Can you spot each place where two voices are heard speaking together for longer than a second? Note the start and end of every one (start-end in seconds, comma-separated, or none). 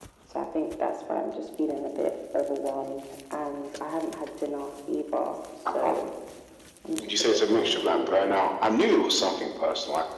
7.0-8.2